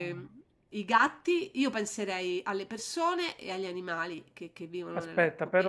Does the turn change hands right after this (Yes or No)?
Yes